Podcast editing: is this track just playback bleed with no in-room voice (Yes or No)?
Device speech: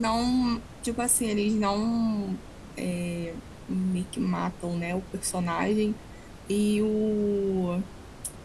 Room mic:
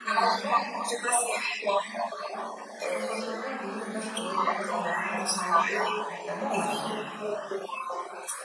No